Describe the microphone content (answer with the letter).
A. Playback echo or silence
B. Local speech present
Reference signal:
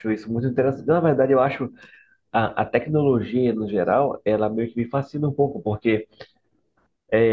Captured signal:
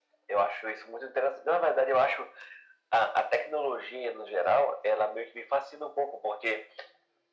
A